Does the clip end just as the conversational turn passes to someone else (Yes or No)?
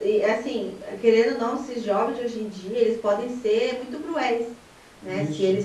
No